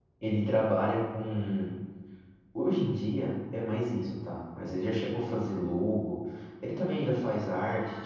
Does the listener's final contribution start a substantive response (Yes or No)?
No